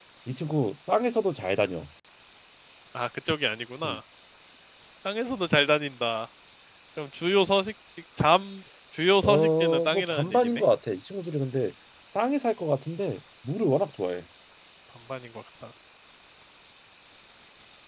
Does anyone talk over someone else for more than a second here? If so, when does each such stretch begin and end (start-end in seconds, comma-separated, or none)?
9.2-10.5